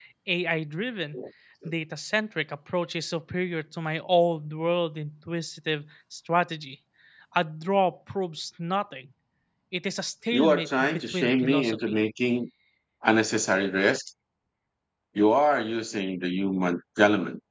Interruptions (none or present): present